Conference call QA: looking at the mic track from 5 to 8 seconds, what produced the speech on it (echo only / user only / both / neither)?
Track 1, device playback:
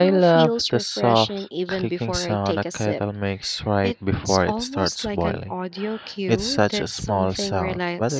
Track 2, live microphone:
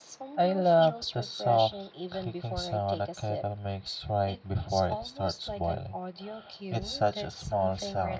echo only